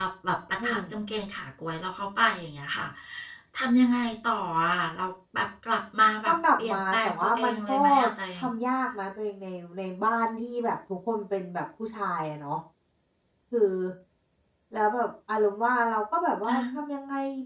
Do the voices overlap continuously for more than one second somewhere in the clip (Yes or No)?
Yes